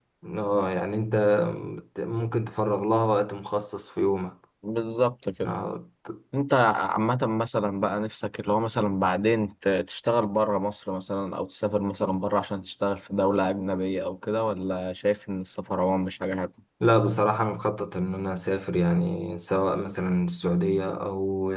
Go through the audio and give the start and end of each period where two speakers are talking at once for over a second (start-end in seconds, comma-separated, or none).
none